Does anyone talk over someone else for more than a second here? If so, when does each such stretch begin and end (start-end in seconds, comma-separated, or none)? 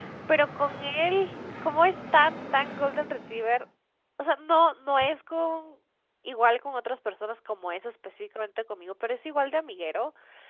none